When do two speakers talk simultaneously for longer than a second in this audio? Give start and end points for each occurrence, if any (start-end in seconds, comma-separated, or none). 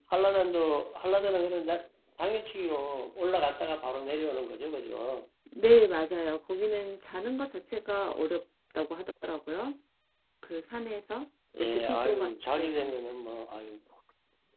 11.6-12.9